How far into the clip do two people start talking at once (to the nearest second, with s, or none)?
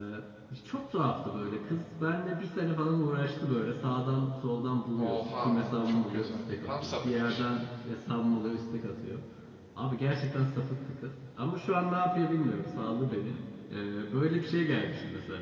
5 s